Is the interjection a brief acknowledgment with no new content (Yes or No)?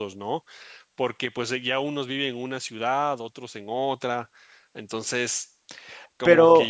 Yes